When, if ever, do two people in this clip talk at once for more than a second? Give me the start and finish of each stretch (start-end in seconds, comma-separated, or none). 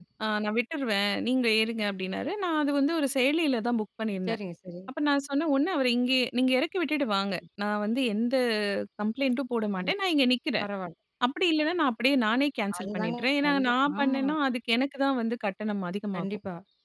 12.8-14.2